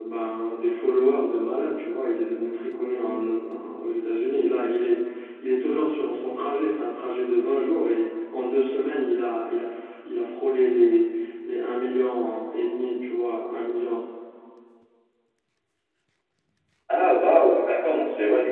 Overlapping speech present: No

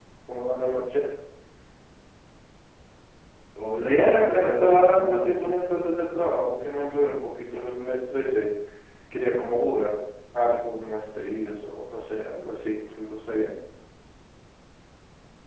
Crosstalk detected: Yes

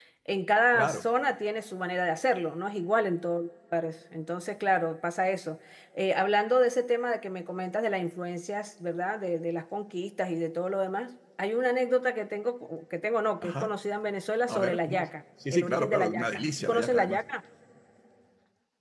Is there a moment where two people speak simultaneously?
Yes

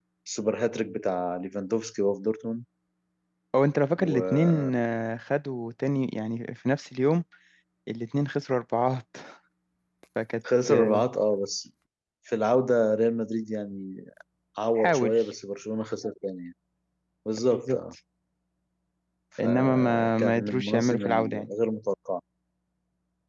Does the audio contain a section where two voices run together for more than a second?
Yes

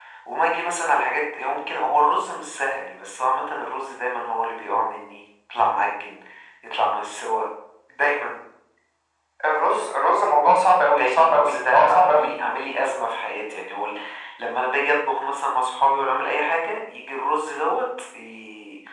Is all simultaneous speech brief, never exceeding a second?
No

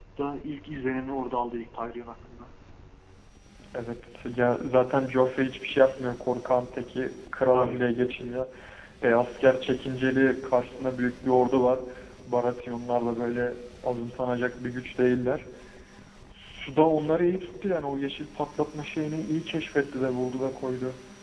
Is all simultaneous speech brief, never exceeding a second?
Yes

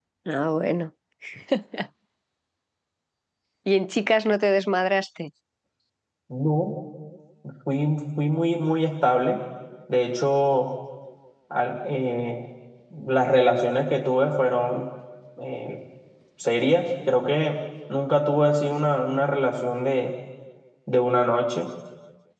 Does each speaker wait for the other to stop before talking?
Yes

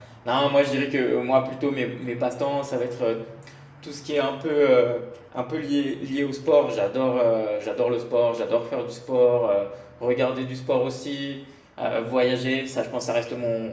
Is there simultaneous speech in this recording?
No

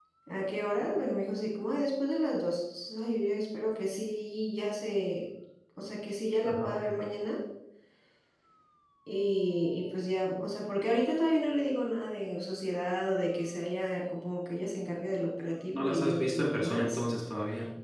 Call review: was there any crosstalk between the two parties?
Yes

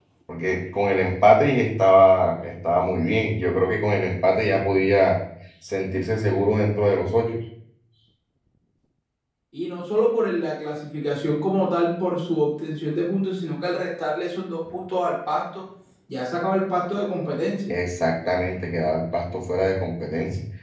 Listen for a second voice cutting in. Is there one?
No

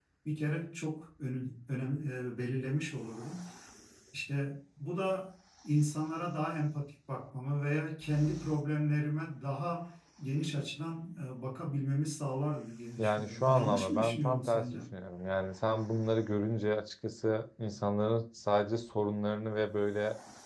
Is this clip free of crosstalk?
No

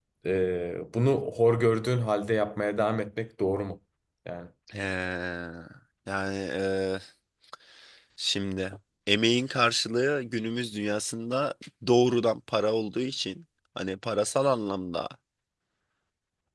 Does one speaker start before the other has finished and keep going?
No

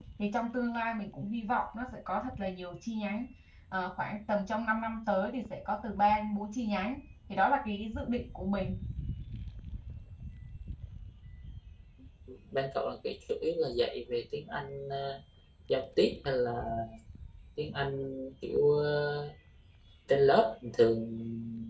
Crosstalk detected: No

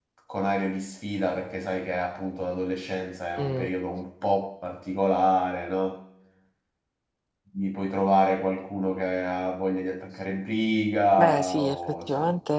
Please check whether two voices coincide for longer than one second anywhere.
Yes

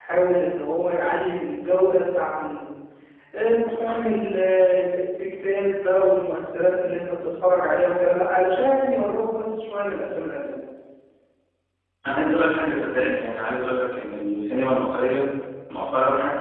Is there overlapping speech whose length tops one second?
No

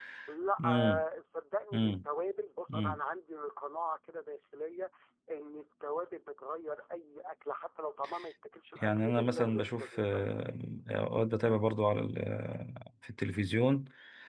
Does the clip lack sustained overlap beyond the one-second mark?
No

